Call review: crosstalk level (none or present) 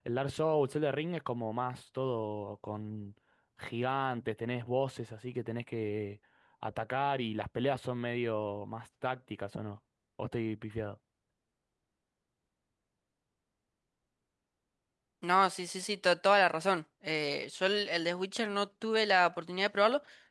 none